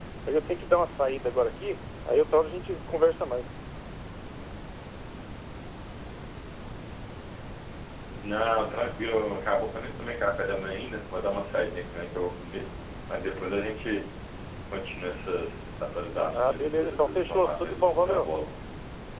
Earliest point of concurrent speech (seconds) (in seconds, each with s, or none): 16.3 s